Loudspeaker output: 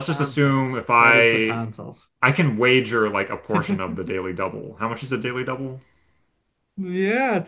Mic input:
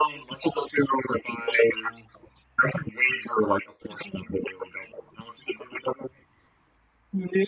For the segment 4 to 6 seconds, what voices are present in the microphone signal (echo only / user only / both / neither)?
echo only